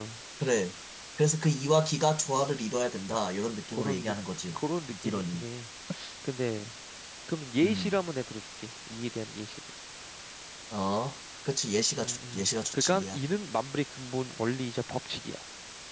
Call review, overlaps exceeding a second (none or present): present